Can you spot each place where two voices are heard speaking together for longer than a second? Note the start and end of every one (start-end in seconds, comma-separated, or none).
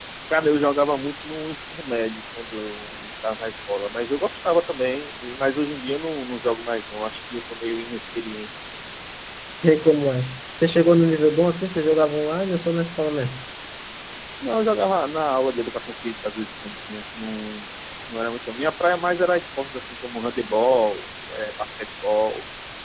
none